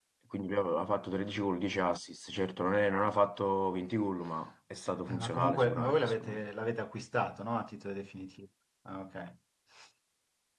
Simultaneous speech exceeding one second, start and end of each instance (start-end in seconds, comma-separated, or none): 5.2-6.4